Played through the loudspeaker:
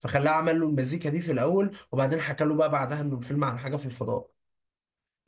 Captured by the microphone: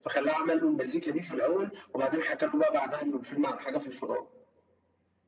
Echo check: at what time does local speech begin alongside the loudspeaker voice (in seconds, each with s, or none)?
none